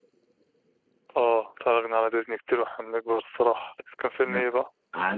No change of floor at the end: No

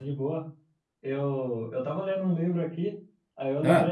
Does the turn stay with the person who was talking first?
Yes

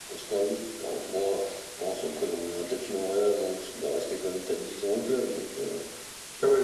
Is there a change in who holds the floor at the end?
Yes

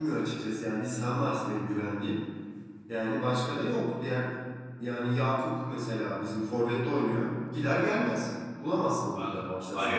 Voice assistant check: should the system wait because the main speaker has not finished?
No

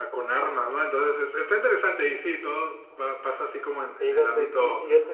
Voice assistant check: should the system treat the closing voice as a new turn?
Yes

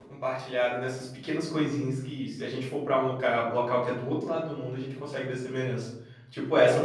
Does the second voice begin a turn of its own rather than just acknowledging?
Yes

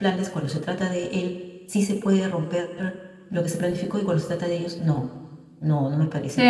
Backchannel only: No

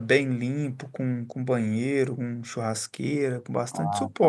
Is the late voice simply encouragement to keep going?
Yes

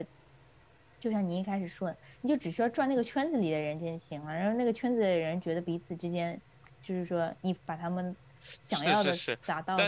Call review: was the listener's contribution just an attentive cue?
No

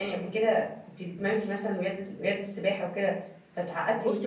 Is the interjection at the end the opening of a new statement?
Yes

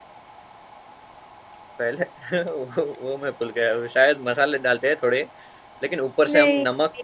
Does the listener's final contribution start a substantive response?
No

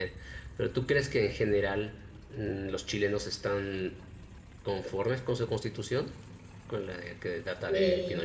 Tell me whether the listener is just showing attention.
No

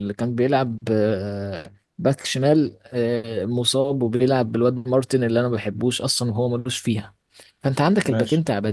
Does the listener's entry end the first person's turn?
No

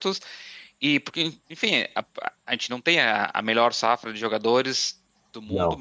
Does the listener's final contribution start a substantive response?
No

